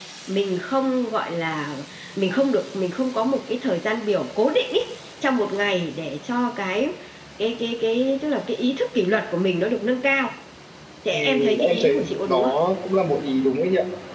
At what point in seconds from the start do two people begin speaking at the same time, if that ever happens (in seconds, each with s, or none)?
11.1 s